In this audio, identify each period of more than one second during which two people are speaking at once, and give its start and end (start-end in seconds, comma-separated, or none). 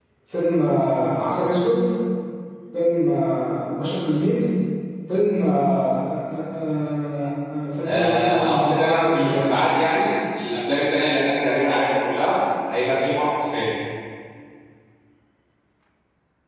7.8-9.6